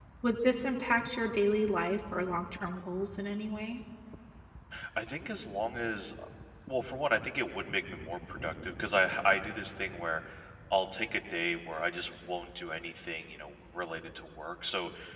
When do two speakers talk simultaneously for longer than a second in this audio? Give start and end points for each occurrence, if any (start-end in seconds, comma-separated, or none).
none